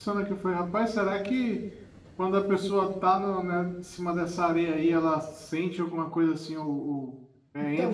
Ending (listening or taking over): taking over